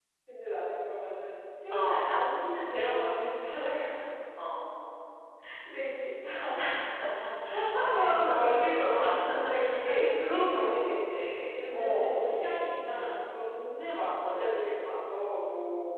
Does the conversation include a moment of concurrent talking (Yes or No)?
Yes